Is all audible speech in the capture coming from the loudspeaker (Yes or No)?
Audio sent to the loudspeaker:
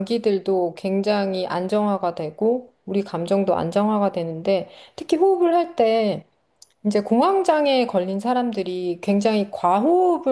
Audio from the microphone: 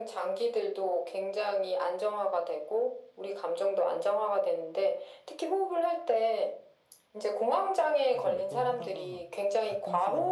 No